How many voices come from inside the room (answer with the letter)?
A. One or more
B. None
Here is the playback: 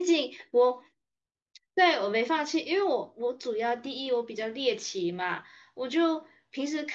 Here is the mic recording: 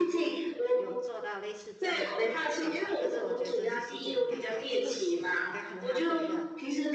A